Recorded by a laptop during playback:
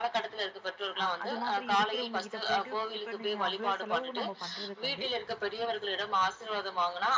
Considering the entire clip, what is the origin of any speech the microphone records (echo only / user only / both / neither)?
both